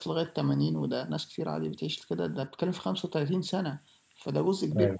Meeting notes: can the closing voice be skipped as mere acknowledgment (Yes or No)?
Yes